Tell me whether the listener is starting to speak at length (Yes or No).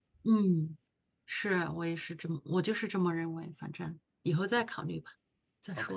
Yes